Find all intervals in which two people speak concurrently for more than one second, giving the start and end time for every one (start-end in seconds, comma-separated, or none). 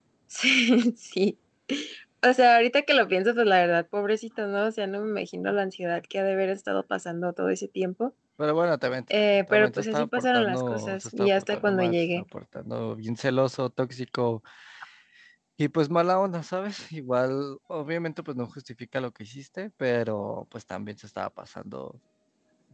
9.5-12.2